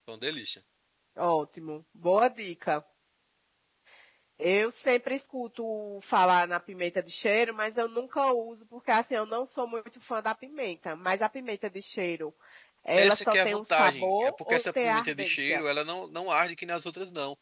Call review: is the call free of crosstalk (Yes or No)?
No